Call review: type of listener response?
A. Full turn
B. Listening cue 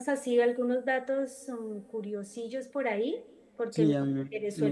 A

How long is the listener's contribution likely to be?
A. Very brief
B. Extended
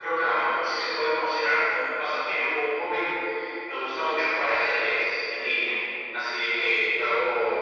A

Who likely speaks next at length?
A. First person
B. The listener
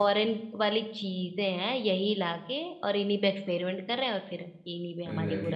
B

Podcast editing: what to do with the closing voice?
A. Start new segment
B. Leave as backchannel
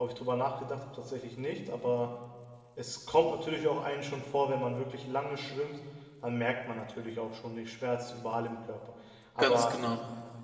B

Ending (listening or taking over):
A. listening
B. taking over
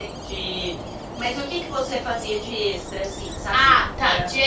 B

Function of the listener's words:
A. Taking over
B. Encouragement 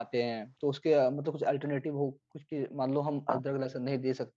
B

